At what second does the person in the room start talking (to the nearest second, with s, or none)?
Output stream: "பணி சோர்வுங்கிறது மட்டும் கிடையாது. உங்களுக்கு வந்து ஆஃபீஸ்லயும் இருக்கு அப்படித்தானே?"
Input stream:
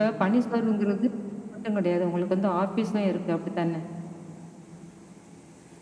none